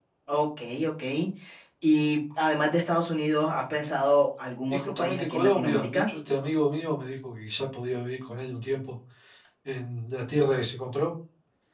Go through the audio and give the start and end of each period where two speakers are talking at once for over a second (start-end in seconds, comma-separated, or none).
4.7-6.1